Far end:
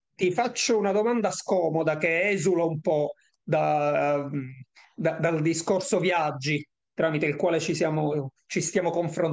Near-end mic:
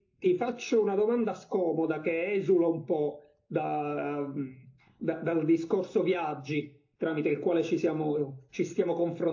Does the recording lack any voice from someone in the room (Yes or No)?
Yes